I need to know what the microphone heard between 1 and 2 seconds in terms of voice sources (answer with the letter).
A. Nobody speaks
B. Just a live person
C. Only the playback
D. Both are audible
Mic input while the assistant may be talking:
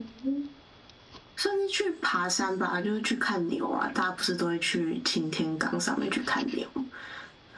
C